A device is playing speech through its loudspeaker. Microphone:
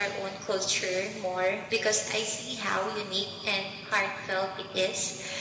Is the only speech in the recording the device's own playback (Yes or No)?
Yes